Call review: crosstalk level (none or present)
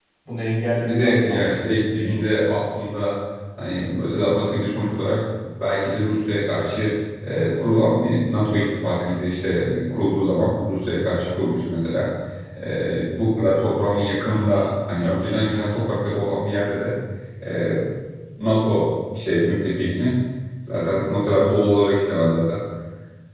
present